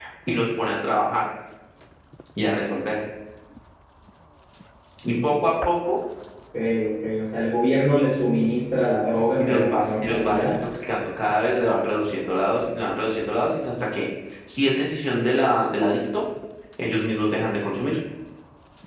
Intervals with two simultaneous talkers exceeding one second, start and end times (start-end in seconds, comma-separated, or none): 9.4-10.6